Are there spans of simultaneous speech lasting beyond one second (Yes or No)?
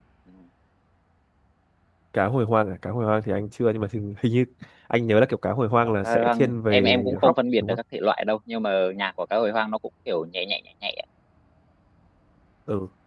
Yes